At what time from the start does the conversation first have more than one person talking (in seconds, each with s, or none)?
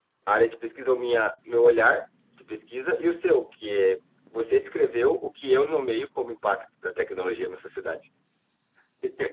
none